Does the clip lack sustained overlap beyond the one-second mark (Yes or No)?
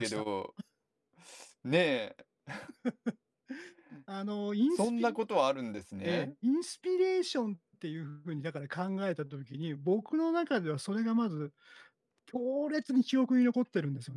Yes